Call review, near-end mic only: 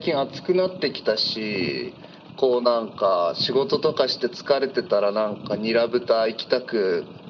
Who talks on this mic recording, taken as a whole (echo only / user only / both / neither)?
echo only